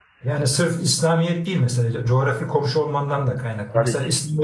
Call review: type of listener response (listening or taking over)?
listening